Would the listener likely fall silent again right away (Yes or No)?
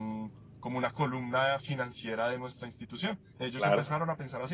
Yes